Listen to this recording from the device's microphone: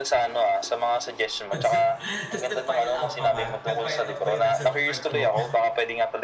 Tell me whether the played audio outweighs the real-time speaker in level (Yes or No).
Yes